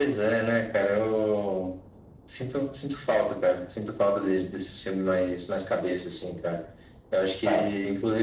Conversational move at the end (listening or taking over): listening